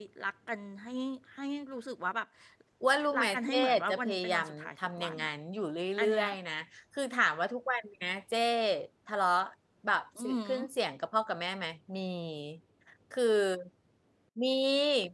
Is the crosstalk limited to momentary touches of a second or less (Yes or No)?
No